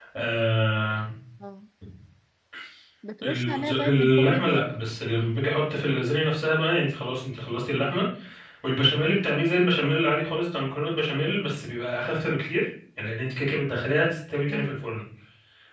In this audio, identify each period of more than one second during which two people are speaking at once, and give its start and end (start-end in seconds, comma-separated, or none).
3.2-4.6